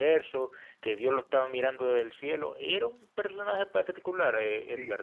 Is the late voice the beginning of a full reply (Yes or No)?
Yes